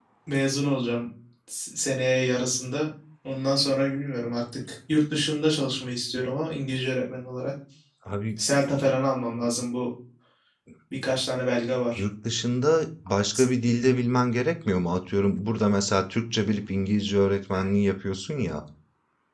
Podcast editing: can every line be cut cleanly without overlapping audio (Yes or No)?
Yes